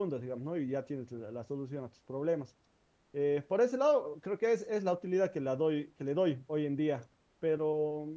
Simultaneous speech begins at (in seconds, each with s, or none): none